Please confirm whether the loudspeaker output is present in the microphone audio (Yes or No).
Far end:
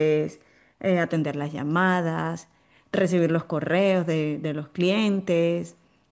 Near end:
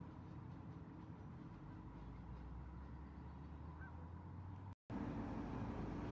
No